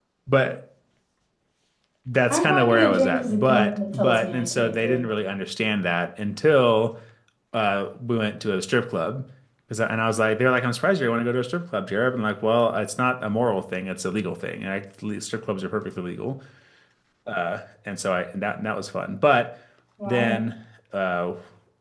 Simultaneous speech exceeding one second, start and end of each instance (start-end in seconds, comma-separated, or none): 2.3-5.1